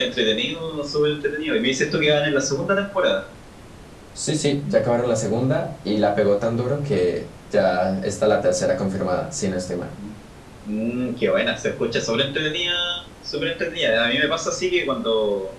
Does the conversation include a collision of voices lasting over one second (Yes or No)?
No